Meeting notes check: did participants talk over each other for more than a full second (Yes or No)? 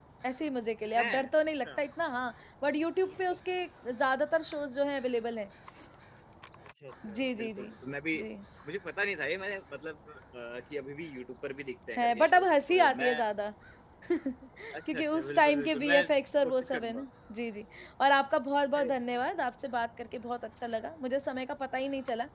Yes